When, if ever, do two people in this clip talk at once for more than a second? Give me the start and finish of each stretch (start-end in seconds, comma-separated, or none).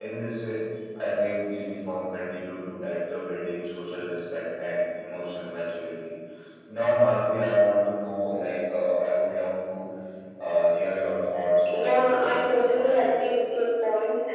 11.7-13.2